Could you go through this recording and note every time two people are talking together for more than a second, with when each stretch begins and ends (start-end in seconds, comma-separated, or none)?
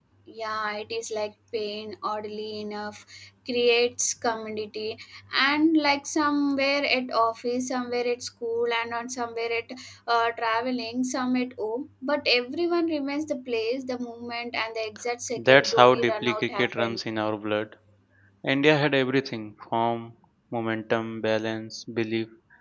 15.4-17.0